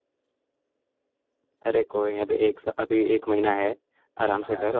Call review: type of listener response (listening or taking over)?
listening